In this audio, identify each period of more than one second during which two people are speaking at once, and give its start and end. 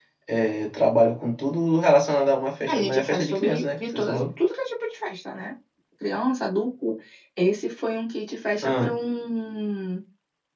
2.7-4.2

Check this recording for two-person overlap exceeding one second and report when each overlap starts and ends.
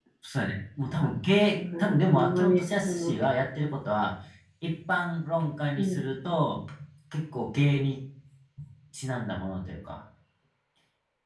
1.6-3.1

